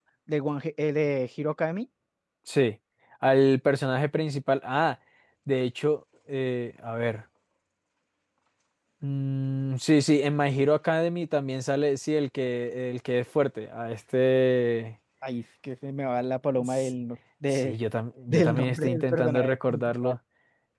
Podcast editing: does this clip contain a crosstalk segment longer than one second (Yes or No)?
Yes